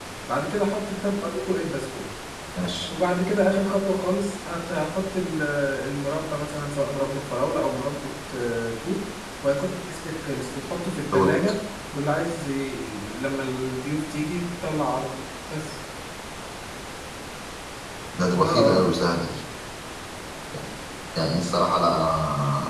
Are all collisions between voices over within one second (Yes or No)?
Yes